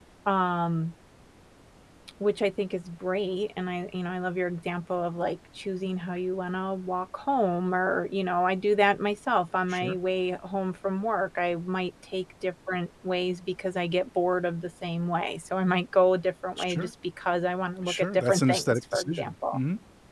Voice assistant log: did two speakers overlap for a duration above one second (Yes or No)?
Yes